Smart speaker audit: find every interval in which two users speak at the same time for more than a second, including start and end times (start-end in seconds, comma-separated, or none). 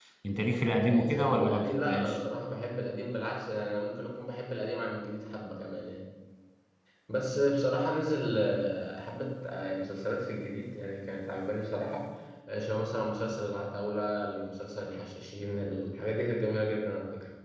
0.9-2.2